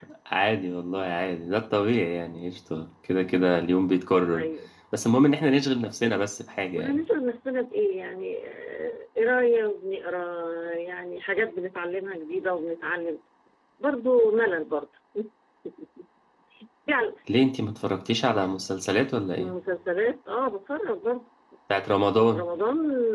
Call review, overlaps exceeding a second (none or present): none